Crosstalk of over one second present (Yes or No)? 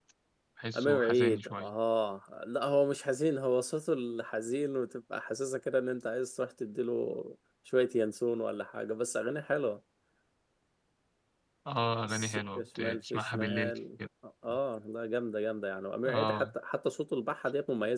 Yes